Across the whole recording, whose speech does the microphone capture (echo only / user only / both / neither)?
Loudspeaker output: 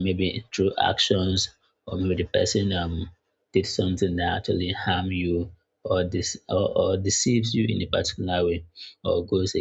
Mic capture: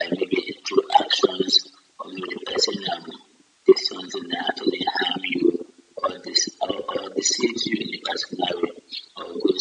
echo only